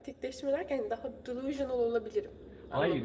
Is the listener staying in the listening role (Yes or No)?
No